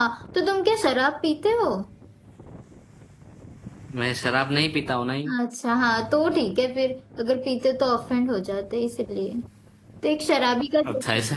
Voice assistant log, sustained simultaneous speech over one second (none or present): none